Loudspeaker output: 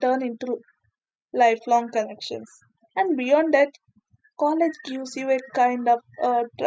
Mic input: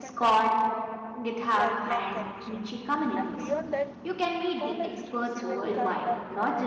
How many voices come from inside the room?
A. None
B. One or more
B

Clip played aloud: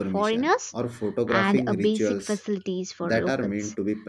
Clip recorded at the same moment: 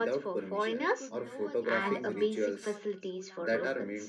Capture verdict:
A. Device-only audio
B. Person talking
B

